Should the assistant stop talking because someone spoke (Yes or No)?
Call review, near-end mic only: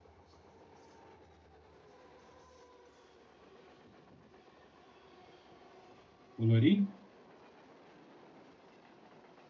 Yes